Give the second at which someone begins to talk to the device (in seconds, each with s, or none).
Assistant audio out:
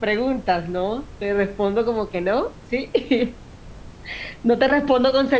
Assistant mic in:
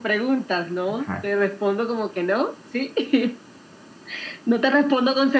0.9 s